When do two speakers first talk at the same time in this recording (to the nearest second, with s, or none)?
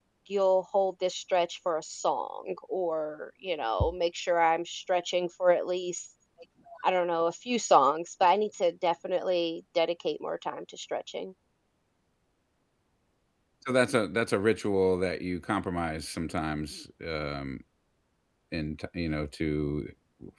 none